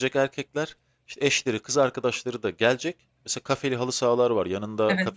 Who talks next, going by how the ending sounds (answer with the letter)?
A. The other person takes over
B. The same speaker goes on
B